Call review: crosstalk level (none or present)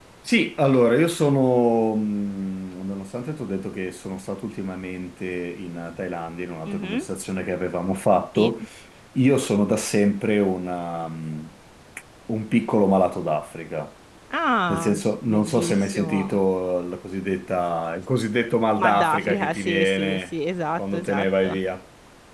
present